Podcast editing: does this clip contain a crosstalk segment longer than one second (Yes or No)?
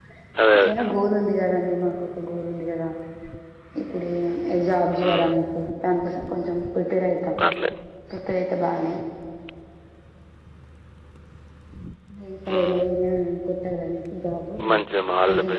No